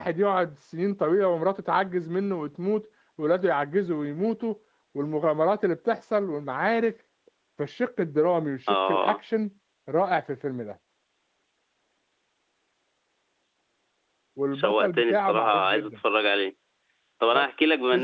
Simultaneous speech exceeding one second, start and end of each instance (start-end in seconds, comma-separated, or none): 14.5-16.0